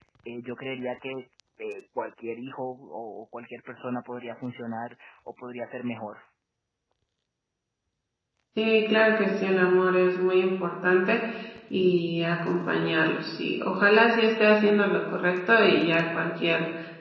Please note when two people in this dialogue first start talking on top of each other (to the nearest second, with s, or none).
none